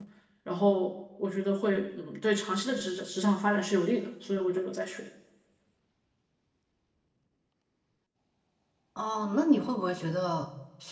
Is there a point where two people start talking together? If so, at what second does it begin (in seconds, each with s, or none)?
none